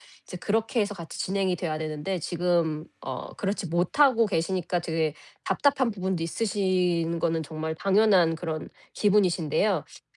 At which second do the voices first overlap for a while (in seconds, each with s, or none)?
none